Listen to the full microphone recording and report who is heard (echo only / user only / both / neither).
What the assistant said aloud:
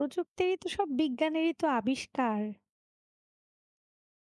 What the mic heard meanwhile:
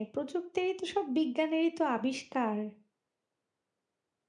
echo only